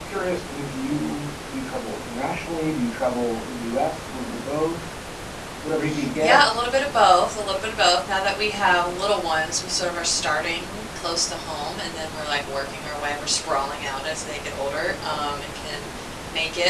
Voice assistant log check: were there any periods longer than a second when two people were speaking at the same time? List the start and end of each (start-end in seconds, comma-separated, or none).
none